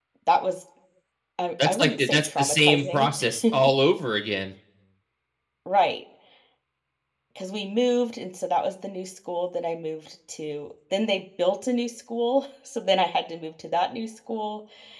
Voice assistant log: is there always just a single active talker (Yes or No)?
No